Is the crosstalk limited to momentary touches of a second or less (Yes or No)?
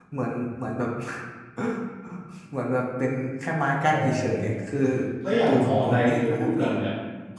No